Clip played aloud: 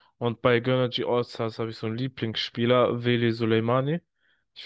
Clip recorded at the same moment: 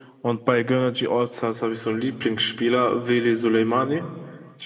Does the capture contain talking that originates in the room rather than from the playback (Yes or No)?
No